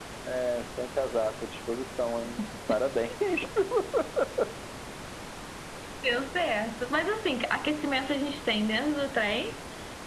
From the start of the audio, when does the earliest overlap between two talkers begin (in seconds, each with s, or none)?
none